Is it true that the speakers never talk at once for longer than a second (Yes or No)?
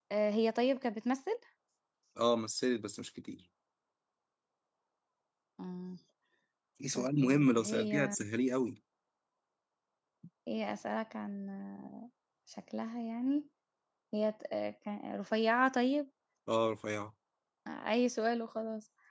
No